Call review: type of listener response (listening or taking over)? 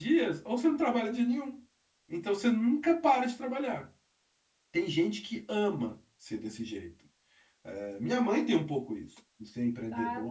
taking over